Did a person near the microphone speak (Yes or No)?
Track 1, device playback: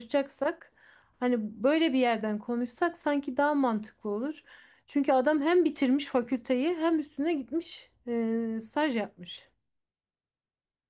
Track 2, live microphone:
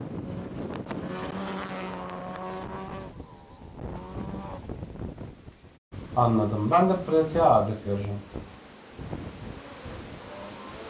Yes